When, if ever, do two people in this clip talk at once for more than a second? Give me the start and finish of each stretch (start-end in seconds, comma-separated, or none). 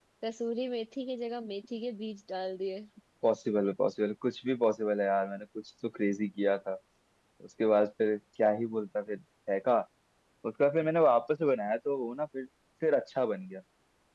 none